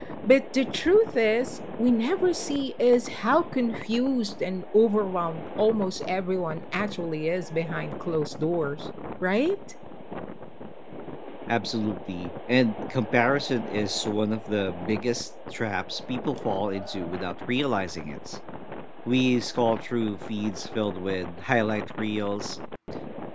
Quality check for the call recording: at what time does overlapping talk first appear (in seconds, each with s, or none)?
none